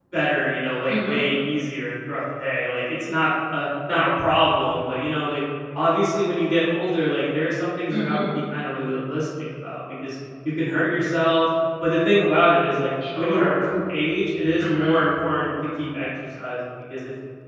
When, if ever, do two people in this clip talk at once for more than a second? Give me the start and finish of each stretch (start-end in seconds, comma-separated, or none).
none